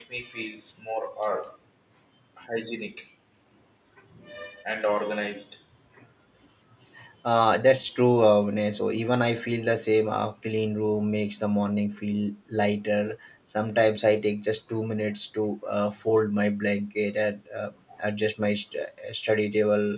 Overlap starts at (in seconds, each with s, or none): none